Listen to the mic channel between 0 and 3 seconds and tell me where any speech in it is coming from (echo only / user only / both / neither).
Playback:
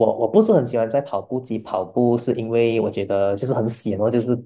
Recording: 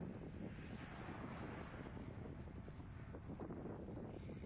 neither